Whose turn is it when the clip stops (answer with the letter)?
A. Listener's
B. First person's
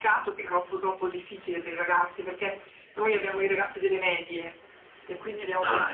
B